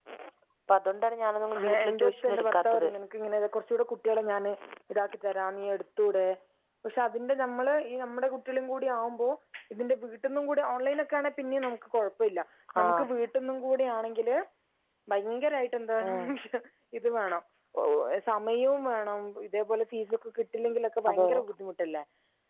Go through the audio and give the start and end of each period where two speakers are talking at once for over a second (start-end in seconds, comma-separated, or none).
1.6-2.9